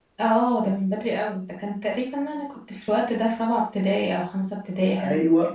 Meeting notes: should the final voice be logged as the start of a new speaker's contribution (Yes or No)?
Yes